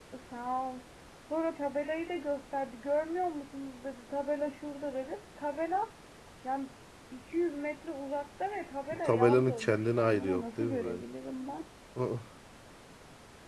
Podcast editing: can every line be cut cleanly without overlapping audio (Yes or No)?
No